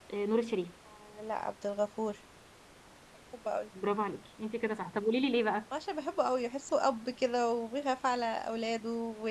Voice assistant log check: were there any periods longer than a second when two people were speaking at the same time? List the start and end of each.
none

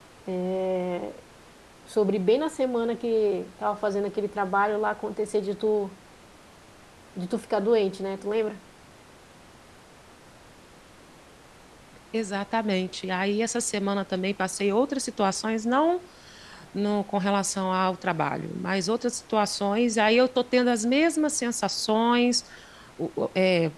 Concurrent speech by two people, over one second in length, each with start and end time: none

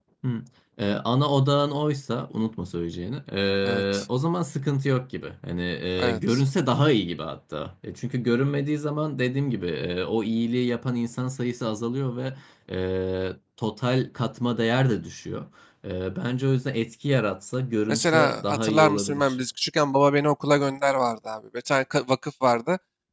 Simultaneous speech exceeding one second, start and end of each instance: 17.9-19.4

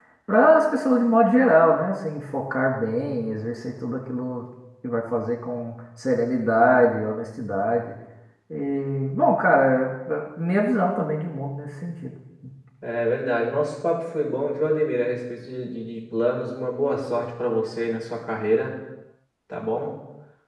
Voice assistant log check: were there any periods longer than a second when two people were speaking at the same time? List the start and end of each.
none

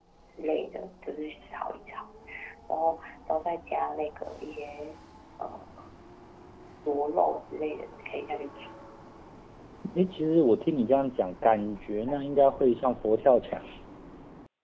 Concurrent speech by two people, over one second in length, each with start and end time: none

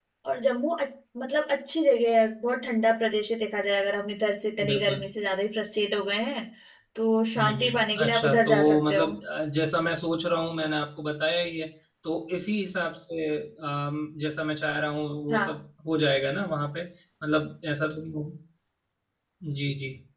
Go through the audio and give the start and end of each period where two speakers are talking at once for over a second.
7.4-9.1

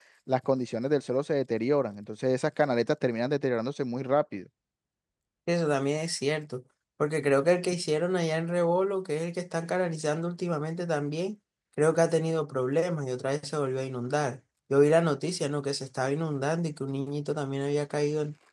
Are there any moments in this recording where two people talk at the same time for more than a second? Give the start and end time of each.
none

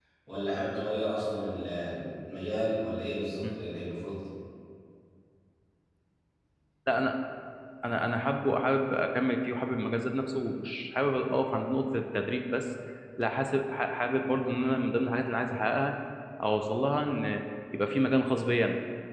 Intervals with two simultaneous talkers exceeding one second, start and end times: none

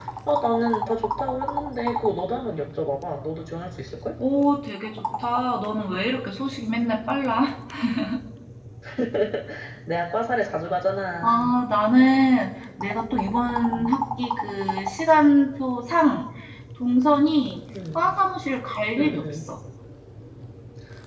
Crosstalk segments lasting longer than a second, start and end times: none

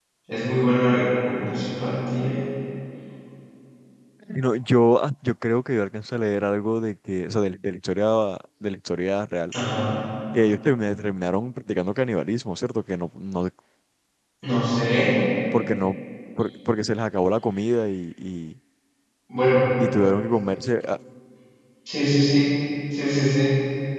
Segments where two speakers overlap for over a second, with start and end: none

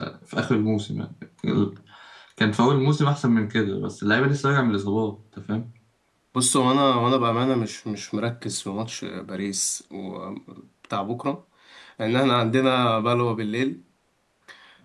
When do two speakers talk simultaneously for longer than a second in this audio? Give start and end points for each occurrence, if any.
none

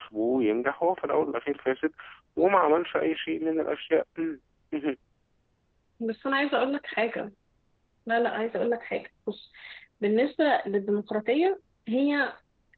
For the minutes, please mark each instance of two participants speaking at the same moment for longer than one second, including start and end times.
none

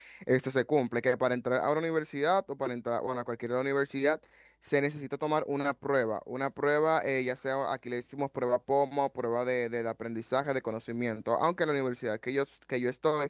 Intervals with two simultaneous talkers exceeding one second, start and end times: none

